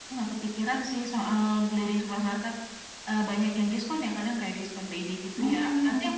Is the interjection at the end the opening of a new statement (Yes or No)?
No